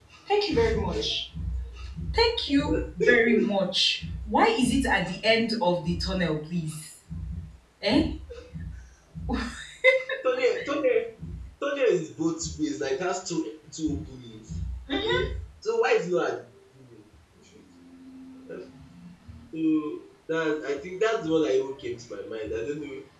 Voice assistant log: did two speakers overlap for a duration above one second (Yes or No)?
No